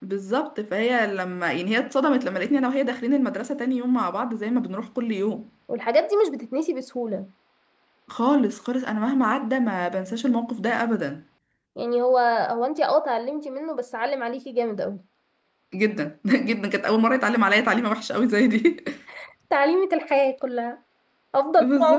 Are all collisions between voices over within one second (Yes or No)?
Yes